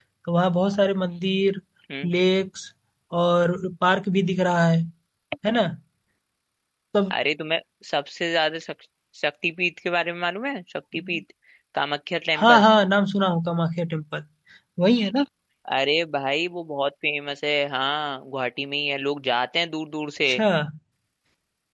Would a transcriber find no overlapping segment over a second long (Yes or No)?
Yes